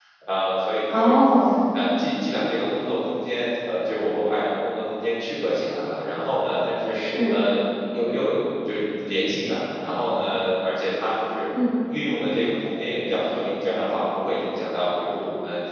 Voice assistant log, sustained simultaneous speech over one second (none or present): none